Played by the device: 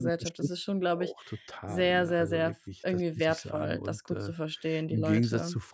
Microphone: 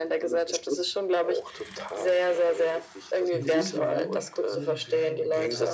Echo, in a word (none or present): present